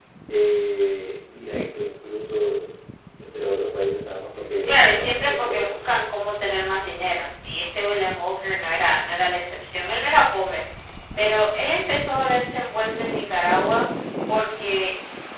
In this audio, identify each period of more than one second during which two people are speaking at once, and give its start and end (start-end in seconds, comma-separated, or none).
4.6-5.9